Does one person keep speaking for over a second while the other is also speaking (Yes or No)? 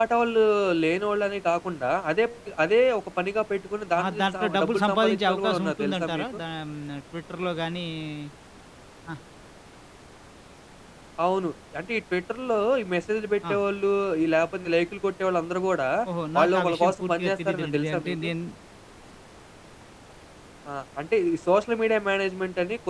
Yes